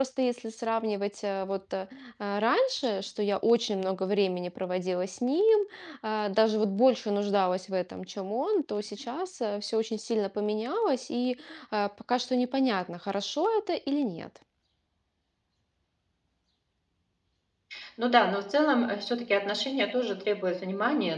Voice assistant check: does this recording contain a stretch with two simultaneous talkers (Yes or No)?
No